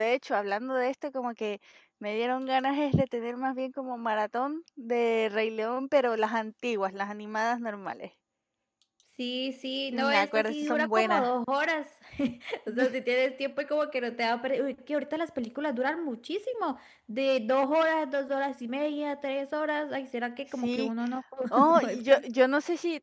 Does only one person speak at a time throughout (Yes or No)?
No